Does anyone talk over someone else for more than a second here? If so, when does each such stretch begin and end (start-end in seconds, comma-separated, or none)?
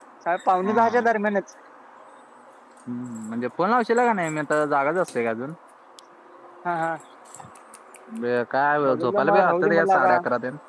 8.9-10.1